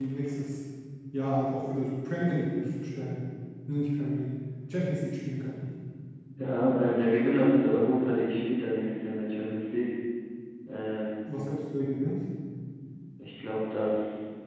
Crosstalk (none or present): none